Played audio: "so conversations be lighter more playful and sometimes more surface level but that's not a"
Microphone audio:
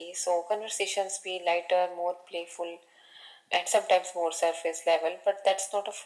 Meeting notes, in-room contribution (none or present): none